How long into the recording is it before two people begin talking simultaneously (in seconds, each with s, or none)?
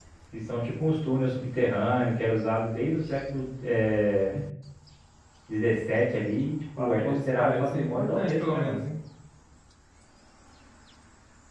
6.8 s